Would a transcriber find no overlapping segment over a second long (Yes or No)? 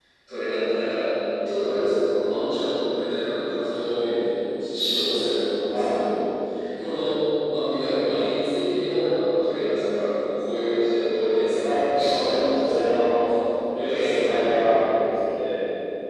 No